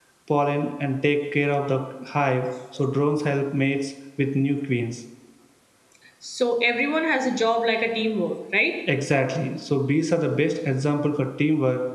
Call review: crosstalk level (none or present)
none